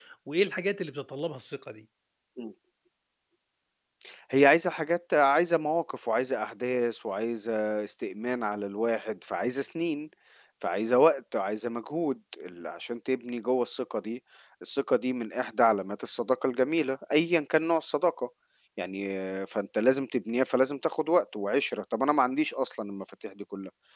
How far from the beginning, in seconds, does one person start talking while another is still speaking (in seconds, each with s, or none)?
none